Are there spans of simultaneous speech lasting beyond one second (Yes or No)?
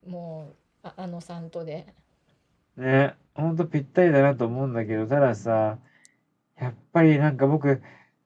No